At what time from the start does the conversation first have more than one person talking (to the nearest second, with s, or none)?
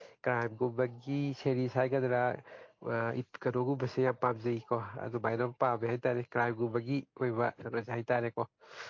none